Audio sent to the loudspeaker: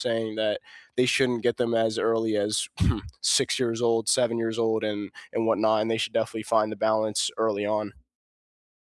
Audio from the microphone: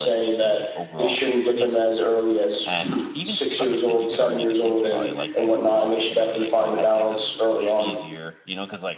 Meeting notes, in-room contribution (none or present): present